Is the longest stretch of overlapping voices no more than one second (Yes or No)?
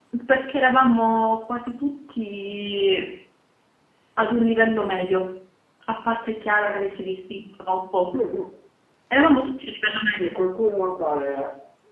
Yes